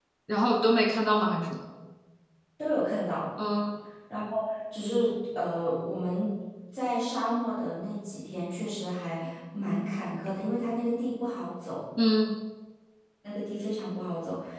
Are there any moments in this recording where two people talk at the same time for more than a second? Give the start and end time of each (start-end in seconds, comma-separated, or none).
none